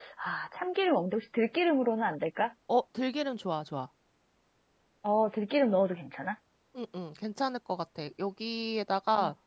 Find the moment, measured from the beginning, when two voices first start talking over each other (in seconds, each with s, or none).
none